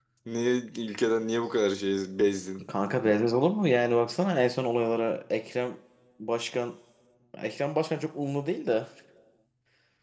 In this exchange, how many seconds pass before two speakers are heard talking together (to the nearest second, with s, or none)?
none